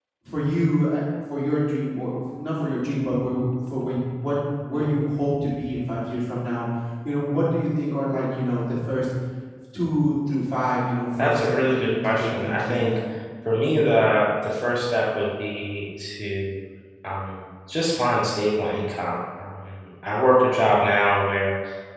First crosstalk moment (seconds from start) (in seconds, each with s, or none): 11.2 s